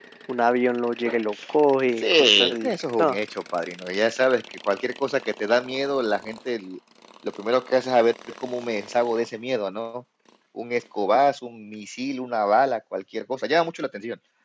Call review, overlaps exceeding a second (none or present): present